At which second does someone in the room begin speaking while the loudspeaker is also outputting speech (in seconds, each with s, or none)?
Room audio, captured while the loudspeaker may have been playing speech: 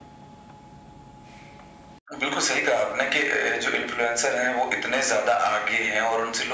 none